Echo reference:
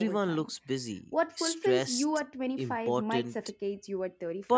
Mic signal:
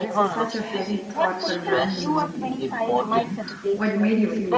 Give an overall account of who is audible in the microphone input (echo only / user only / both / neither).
both